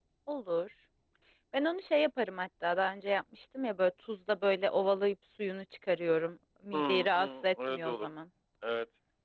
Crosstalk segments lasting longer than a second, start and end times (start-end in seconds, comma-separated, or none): 6.7-8.1